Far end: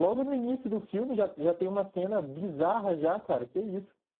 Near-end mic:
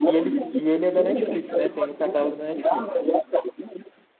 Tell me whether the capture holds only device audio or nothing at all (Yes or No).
No